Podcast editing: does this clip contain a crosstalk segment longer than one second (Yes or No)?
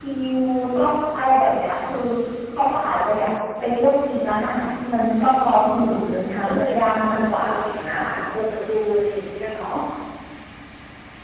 Yes